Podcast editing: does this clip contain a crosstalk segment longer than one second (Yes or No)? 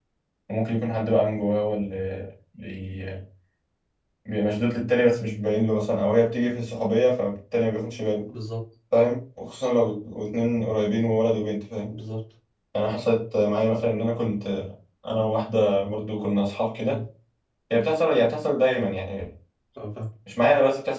No